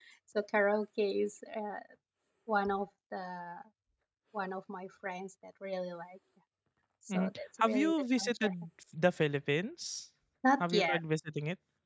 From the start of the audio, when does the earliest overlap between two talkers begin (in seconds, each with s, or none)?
7.1 s